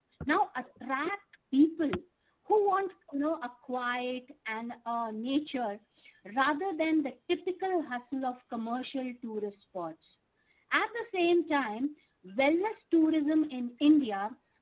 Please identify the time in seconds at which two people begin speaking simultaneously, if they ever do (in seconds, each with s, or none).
none